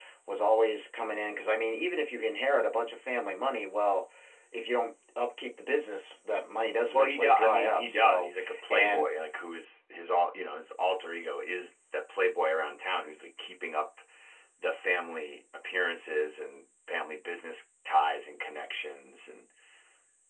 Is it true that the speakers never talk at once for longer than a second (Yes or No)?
No